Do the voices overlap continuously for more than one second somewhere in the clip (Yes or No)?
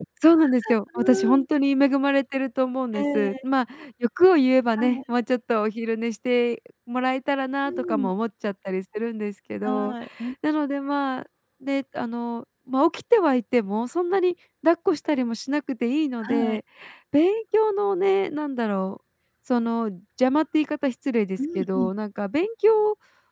No